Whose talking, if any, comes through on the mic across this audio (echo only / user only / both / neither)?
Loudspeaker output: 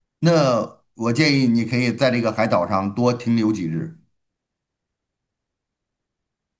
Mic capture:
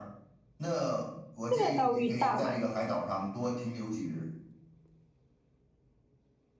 both